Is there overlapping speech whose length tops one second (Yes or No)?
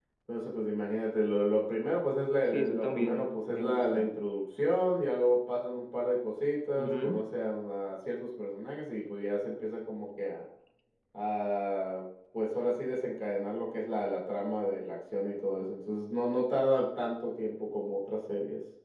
Yes